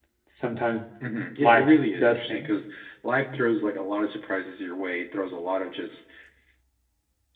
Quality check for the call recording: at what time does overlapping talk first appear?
1.4 s

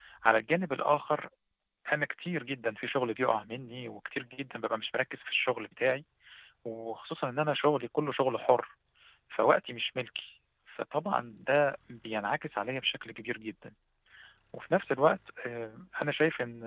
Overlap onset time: none

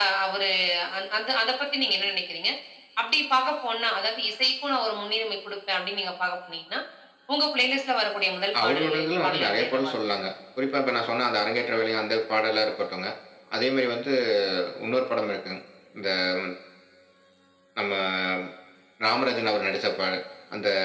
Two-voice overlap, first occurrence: 8.5 s

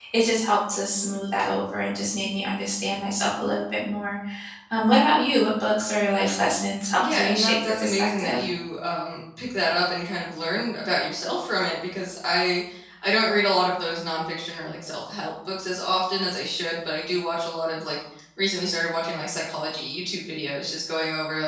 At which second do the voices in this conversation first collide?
7.0 s

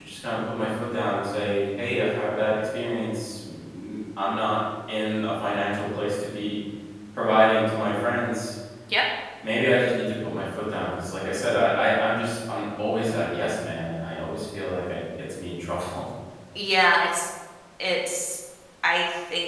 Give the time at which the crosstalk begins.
none

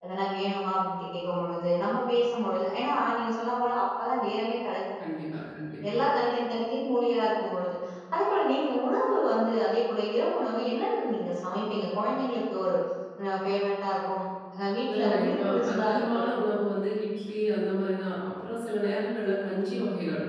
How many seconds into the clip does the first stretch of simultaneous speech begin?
14.9 s

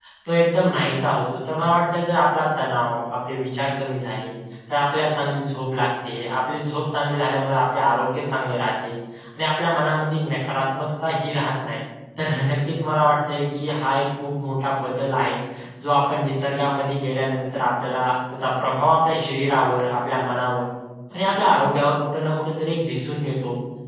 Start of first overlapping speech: none

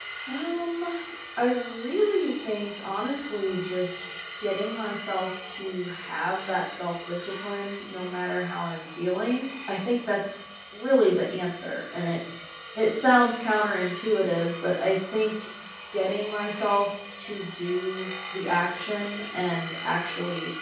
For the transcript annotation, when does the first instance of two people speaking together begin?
none

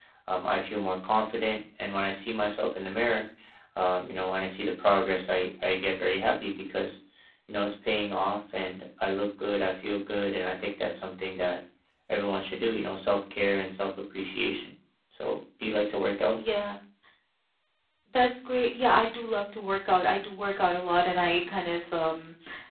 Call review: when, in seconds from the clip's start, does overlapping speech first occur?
none

